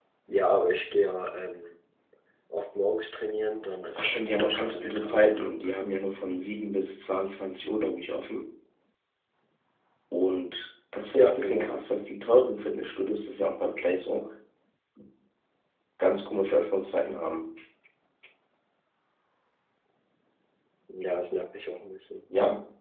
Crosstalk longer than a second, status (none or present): present